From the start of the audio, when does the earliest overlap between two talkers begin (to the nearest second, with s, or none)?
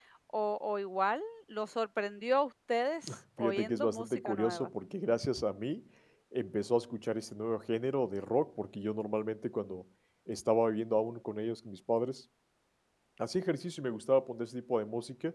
3 s